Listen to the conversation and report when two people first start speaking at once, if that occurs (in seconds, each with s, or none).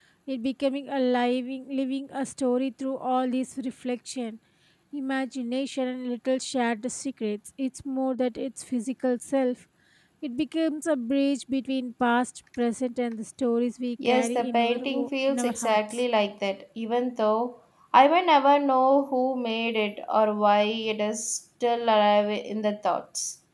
14.0 s